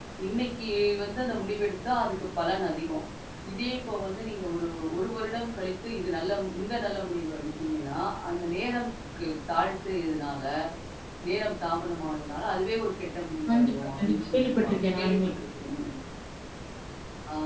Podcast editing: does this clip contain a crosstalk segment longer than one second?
Yes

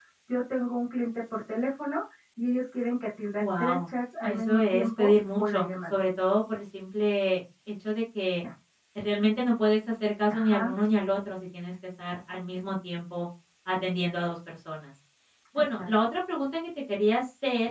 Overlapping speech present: Yes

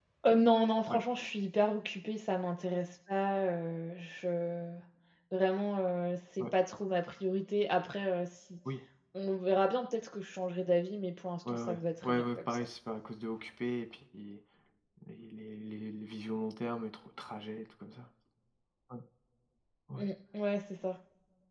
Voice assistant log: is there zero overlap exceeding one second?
No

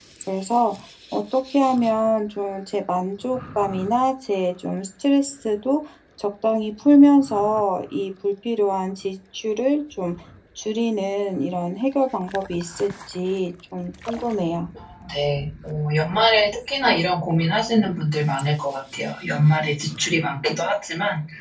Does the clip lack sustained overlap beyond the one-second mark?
Yes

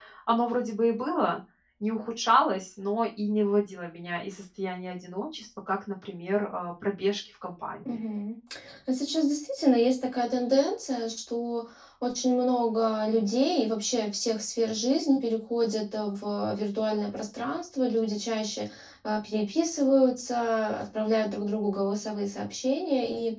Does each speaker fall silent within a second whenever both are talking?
Yes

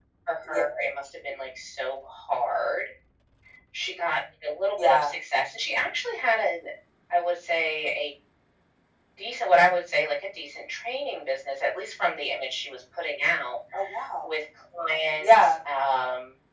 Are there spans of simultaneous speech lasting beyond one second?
No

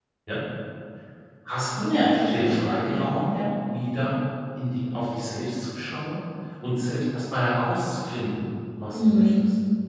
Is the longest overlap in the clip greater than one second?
Yes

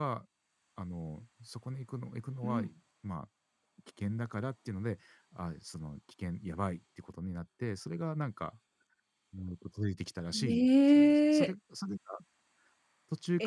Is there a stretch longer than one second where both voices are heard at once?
Yes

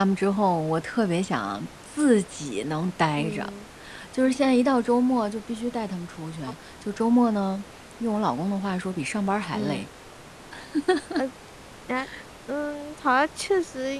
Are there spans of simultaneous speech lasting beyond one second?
No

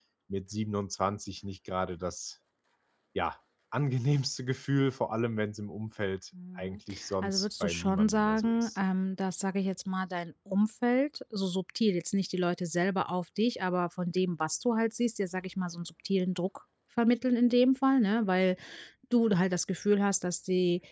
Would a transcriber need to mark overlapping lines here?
Yes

